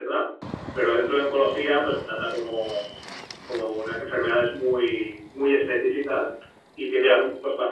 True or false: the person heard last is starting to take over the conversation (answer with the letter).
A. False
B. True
A